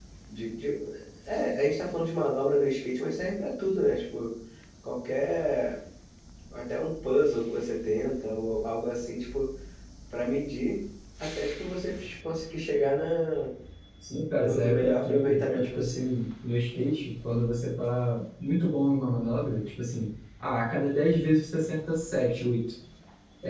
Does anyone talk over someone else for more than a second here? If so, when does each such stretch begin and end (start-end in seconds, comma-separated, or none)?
14.4-16.1